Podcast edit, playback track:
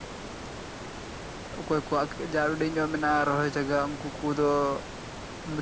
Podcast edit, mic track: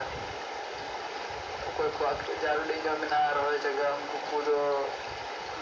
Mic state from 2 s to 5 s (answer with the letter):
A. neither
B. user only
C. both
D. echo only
D